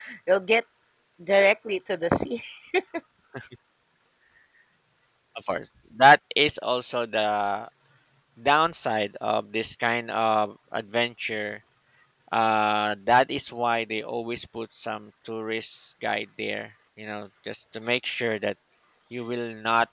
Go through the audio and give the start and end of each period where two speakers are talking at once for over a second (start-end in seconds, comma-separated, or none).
none